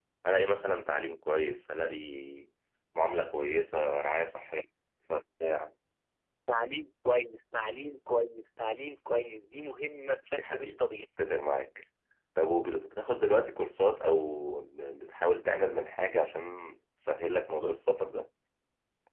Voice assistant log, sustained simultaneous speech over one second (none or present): none